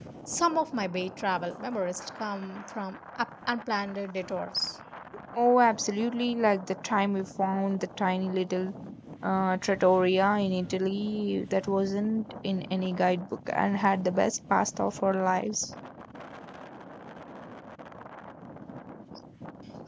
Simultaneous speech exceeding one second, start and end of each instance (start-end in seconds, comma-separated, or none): none